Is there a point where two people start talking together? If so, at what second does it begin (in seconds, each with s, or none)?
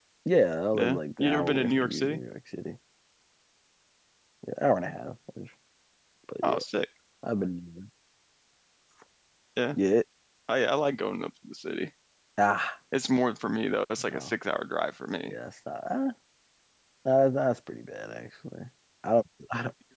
0.7 s